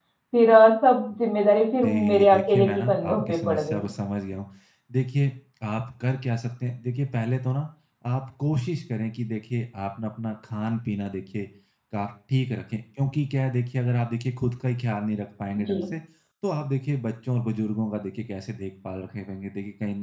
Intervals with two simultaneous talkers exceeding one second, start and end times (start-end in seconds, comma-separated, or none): 1.8-3.9